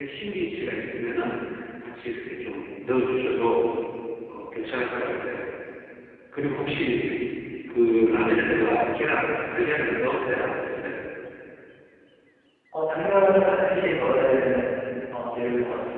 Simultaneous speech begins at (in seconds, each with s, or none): none